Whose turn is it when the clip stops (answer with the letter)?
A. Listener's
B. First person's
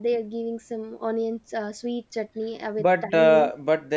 A